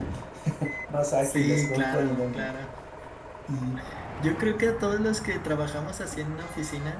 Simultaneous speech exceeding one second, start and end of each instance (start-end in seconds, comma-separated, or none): 1.2-2.5